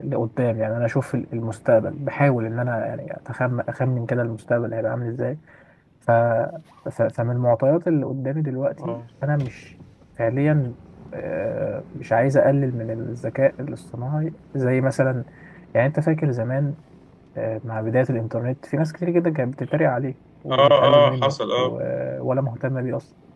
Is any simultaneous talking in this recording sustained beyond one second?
Yes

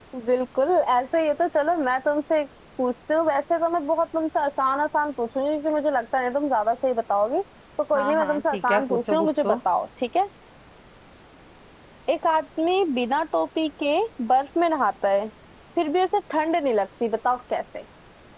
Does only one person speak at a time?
No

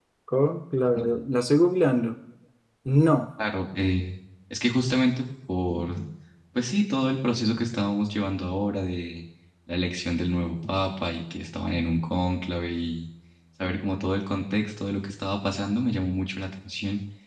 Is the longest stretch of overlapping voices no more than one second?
Yes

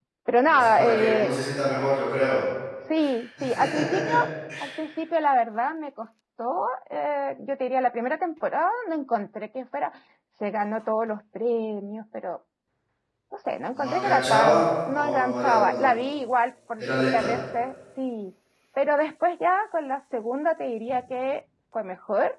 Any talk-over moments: Yes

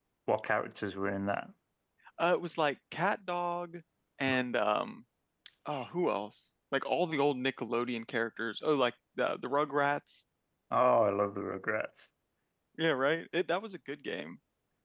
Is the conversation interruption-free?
Yes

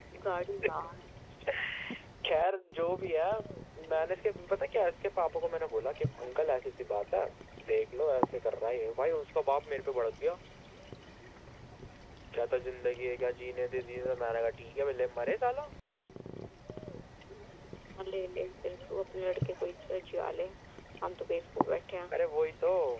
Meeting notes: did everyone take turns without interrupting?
Yes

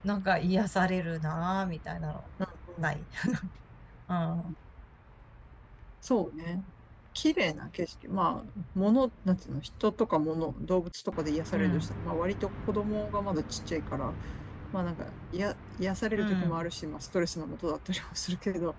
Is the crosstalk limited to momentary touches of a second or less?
Yes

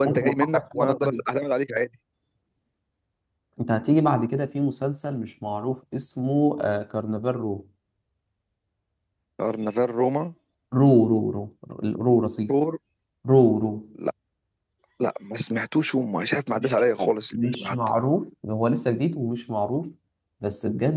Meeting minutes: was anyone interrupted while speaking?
Yes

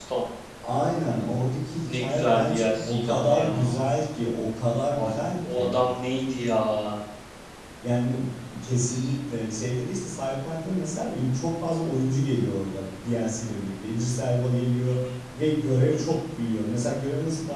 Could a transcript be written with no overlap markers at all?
No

